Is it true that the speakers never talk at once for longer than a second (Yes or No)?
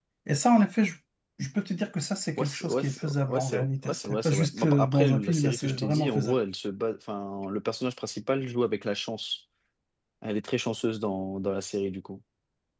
No